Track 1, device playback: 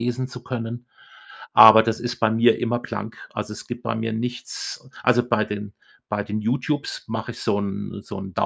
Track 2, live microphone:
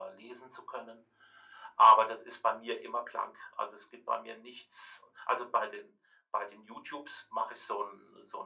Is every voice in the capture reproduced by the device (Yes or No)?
Yes